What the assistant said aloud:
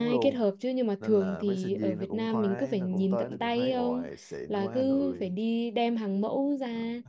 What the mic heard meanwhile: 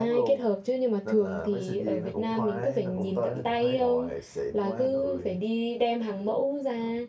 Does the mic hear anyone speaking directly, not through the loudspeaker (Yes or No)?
No